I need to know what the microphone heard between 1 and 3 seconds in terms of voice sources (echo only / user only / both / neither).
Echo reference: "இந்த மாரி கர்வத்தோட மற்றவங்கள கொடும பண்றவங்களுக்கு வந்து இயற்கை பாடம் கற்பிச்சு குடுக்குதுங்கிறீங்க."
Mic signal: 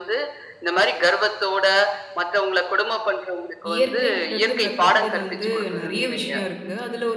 echo only